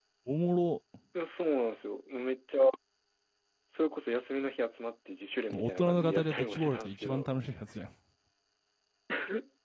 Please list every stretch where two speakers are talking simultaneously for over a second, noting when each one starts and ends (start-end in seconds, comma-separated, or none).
5.5-7.3